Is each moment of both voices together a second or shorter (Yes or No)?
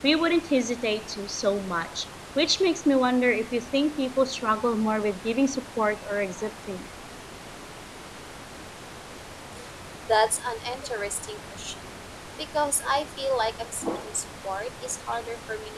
Yes